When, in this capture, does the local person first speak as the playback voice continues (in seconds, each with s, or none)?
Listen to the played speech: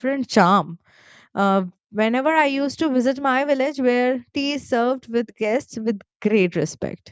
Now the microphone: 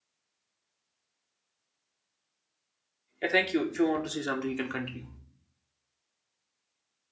3.2 s